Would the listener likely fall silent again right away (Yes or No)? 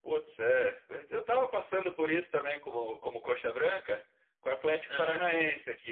Yes